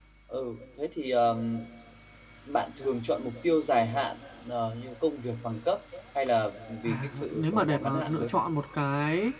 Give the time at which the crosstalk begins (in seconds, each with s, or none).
6.8 s